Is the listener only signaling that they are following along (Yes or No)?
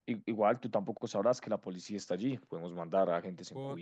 No